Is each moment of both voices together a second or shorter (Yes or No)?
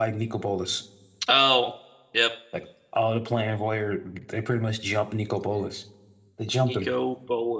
Yes